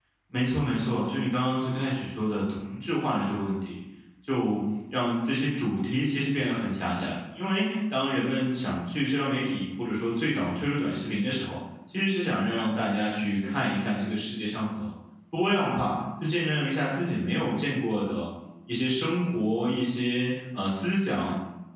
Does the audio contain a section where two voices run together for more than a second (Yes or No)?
No